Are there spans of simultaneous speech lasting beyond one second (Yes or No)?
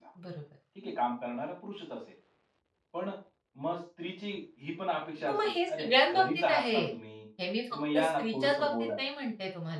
Yes